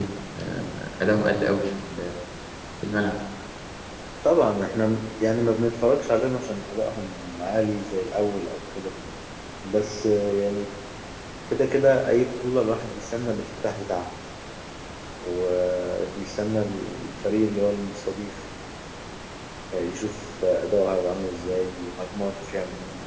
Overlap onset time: none

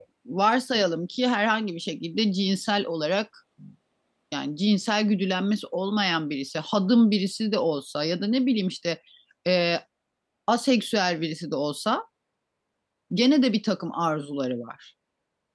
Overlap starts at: none

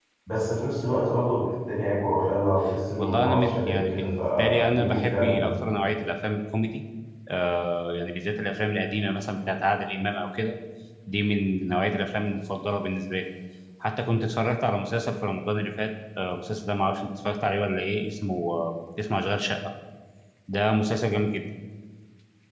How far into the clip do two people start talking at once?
3.0 s

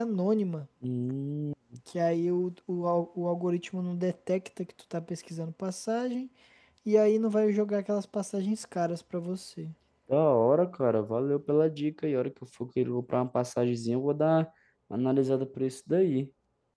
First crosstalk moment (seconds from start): none

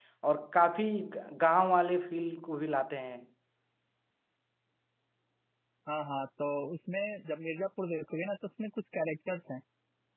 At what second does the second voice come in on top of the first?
none

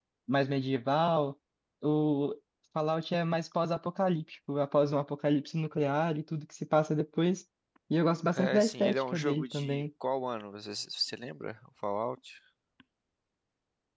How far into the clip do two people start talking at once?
8.3 s

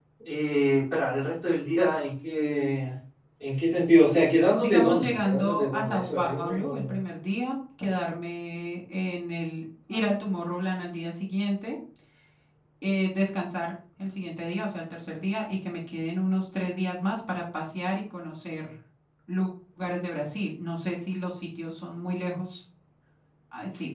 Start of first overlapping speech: 4.5 s

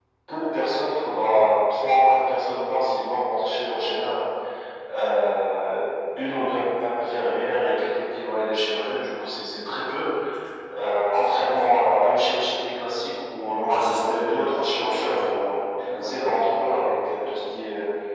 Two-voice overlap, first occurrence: 13.7 s

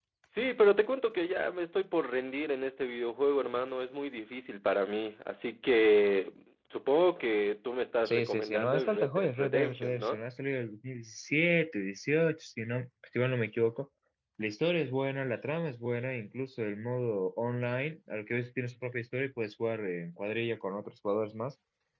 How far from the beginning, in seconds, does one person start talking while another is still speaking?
8.1 s

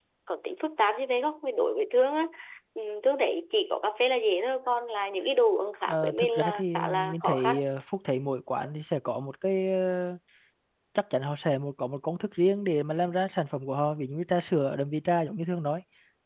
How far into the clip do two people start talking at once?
5.9 s

